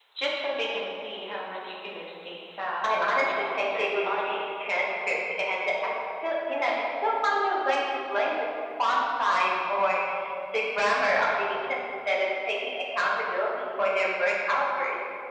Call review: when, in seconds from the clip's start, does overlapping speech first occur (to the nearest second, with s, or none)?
3 s